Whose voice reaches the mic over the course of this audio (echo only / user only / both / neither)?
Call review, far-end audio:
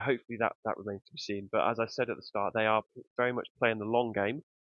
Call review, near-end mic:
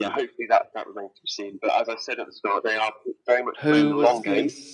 both